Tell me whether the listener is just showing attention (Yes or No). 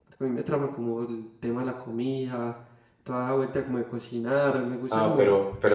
No